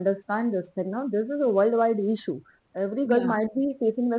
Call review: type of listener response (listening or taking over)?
listening